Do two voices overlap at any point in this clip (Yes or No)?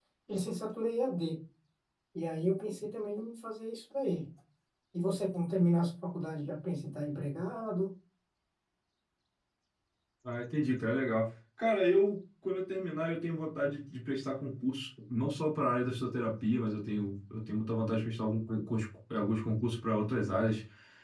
No